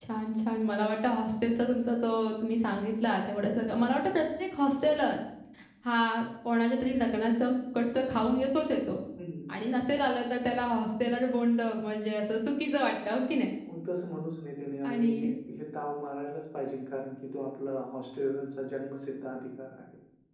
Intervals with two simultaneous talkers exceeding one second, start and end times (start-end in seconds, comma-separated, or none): none